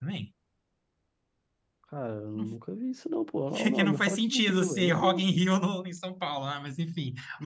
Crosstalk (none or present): present